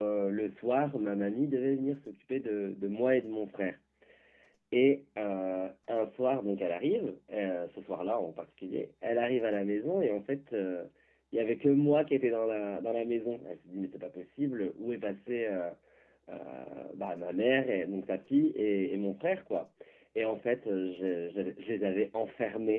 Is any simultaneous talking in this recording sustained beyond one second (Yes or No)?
No